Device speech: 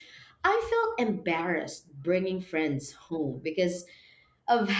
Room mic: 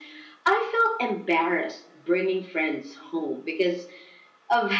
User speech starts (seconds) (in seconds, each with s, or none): none